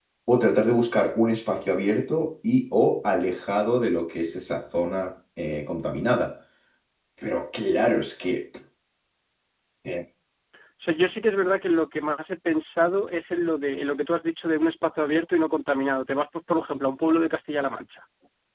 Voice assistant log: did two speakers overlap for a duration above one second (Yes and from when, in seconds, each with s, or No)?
No